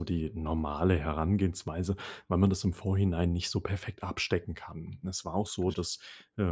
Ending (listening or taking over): listening